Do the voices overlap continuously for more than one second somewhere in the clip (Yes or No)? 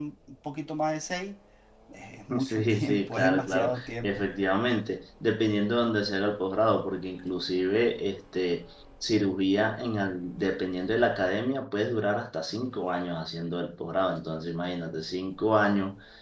Yes